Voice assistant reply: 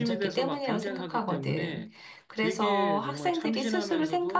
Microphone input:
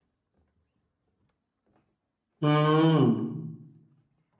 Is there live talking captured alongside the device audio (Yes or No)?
Yes